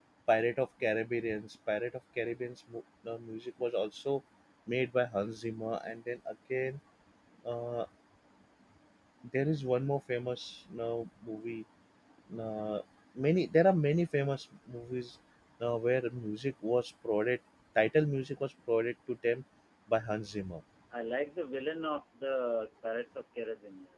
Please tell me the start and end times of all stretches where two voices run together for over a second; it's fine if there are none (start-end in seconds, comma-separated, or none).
none